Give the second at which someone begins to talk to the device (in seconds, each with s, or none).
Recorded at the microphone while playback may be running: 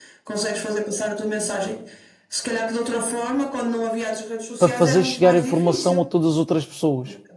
4.6 s